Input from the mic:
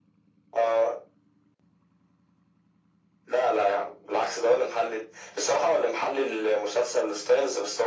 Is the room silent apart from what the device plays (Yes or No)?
Yes